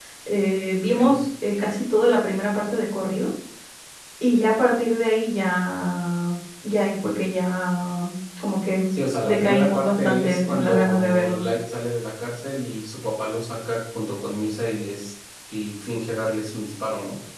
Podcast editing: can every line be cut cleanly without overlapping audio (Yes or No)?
No